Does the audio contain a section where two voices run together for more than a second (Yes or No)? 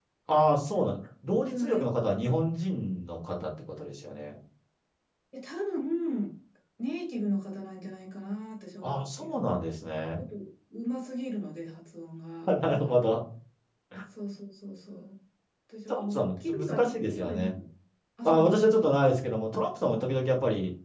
Yes